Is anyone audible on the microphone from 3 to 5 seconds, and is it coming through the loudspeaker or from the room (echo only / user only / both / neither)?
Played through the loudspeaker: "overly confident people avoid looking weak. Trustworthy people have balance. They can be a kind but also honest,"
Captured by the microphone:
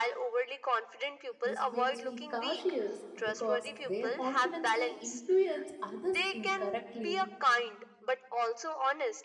both